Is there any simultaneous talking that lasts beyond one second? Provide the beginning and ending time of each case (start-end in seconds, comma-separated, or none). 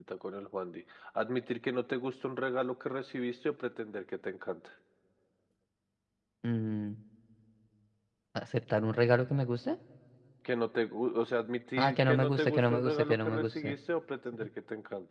11.8-13.7